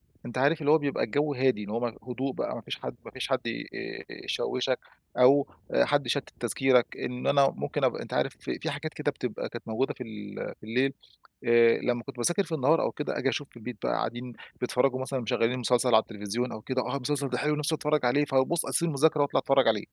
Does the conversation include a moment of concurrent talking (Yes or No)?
No